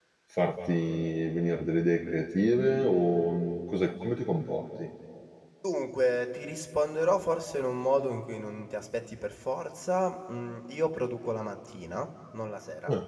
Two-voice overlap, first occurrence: none

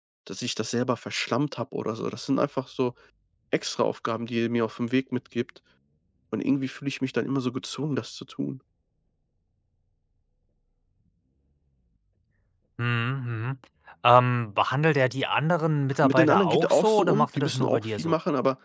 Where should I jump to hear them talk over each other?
16 s

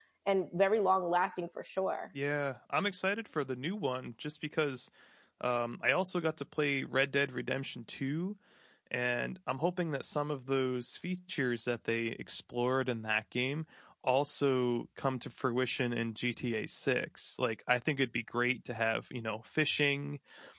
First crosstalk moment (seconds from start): none

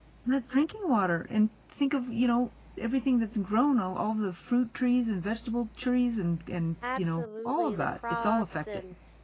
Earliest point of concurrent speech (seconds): 7 s

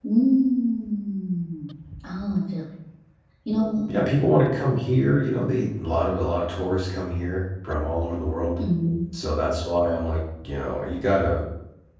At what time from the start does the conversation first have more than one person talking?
none

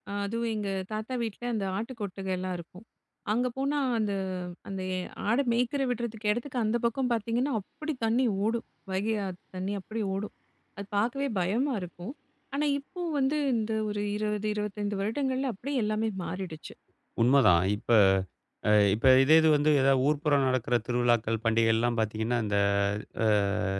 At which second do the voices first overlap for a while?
none

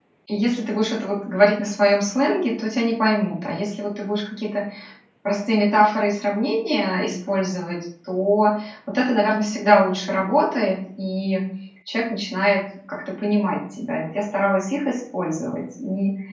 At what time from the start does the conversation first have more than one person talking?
none

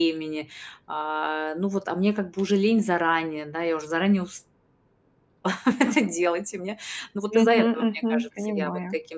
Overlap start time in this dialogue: 7 s

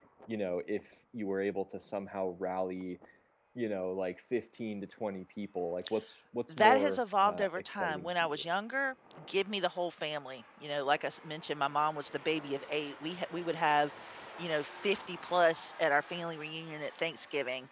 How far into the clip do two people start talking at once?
6 s

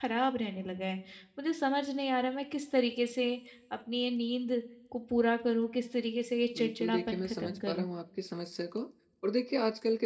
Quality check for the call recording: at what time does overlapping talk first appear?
7 s

